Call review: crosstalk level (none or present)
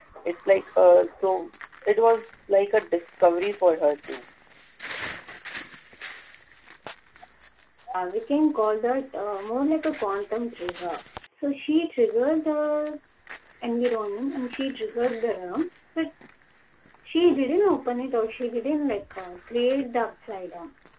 none